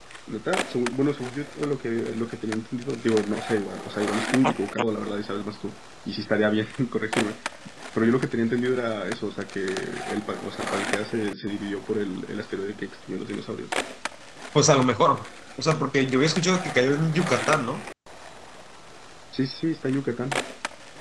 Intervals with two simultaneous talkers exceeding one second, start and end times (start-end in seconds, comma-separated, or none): none